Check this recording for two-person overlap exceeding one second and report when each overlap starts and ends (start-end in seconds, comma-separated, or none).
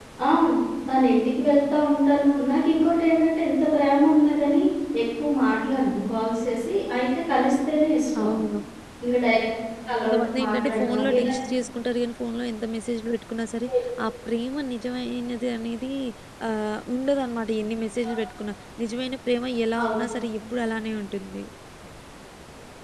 10.0-11.3